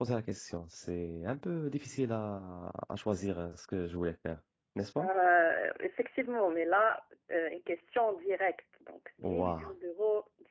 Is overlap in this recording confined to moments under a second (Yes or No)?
Yes